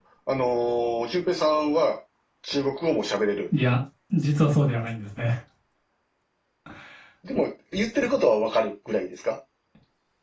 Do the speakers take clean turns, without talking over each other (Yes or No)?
Yes